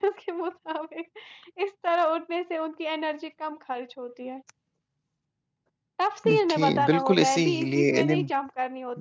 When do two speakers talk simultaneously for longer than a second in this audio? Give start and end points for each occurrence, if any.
6.5-8.3

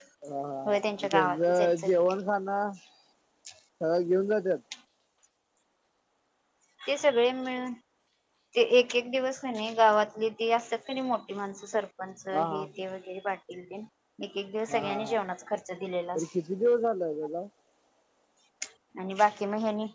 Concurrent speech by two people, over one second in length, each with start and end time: 0.7-2.0

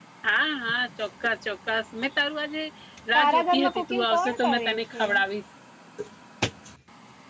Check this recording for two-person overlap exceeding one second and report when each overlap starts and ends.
3.1-5.0

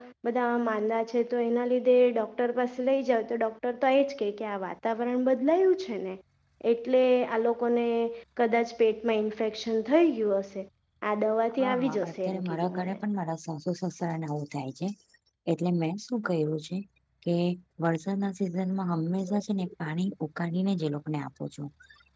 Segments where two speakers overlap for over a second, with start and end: 11.6-13.0

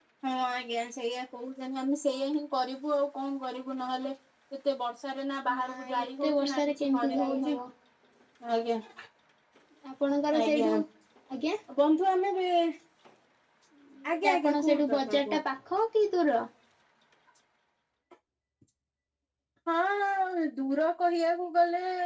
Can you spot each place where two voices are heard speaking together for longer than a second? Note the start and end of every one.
5.5-7.5, 14.1-15.4

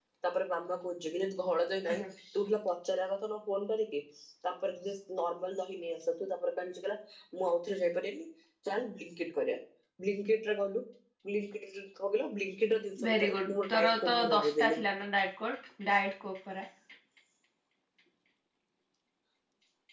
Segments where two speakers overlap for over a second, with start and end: 13.0-14.8

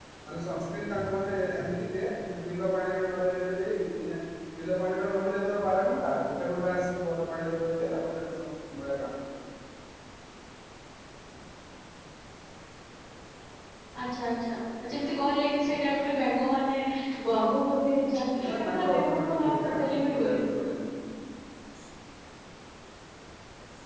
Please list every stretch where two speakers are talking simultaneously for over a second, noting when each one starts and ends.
18.5-20.7

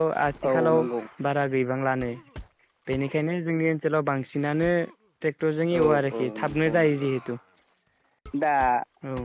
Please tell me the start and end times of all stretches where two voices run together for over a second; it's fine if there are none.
5.8-7.1

